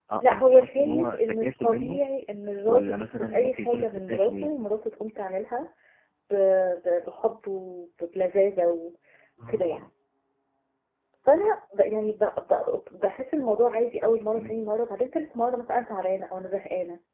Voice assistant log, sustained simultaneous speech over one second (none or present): present